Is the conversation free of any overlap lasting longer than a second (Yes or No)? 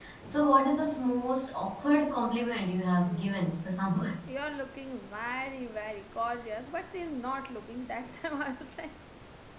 Yes